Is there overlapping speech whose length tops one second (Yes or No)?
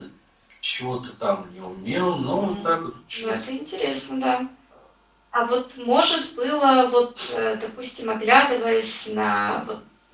No